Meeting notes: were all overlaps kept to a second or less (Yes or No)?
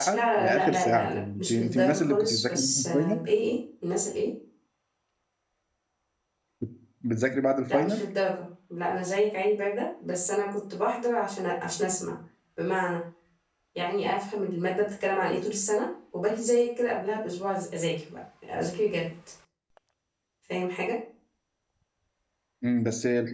No